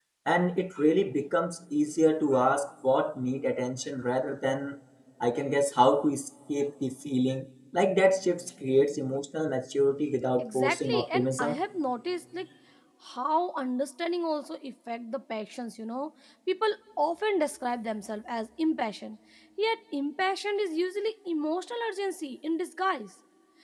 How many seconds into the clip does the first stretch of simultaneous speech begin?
10 s

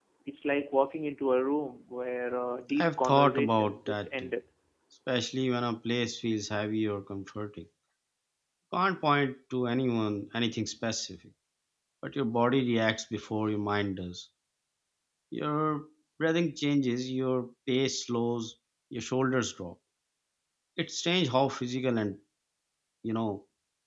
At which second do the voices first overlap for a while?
3 s

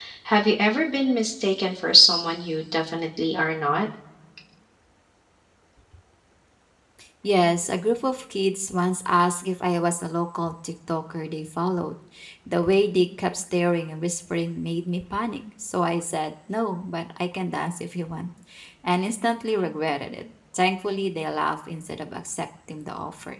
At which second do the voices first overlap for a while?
none

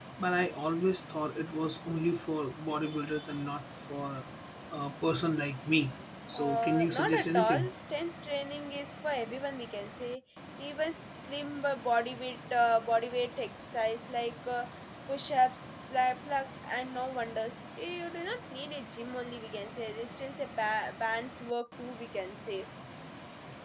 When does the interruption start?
6 s

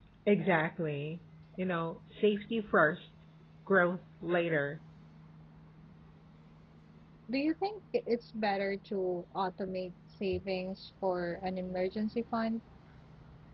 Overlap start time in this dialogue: none

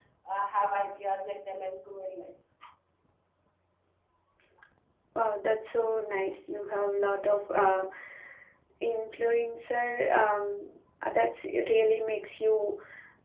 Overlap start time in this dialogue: none

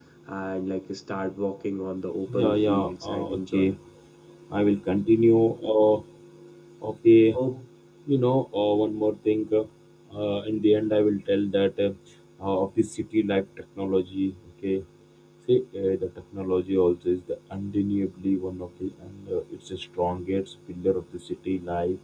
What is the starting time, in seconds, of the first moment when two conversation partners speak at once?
2 s

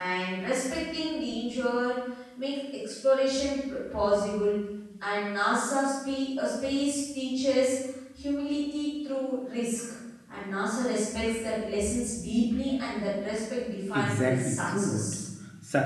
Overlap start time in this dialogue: 14 s

